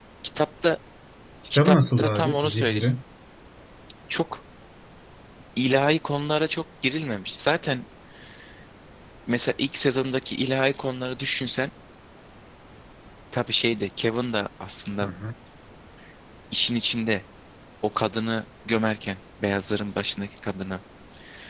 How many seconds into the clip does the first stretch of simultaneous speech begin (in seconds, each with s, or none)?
1.6 s